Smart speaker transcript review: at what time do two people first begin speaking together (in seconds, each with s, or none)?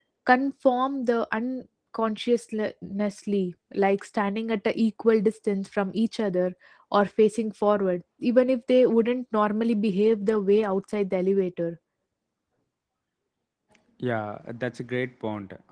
none